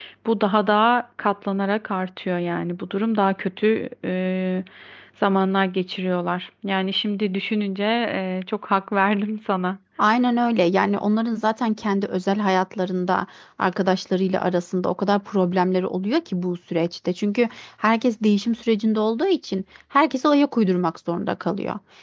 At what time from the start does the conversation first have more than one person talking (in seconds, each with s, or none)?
none